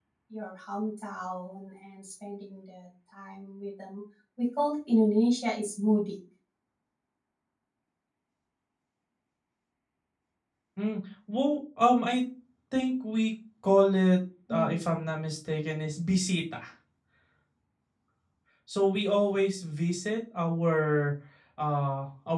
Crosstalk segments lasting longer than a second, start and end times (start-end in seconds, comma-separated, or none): none